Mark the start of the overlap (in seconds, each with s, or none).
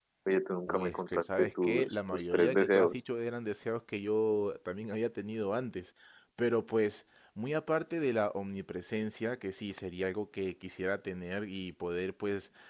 0.7 s